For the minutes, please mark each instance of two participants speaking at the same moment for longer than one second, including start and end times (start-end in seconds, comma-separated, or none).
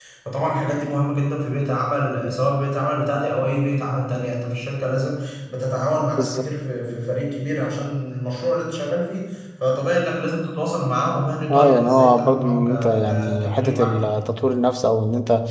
11.5-14.2